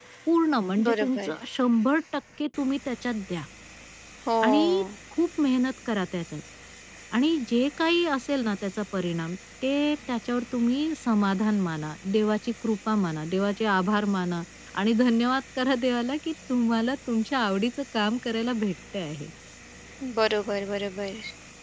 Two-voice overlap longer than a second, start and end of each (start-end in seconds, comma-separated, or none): none